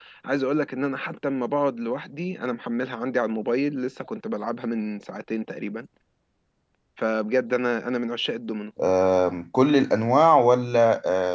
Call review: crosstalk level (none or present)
none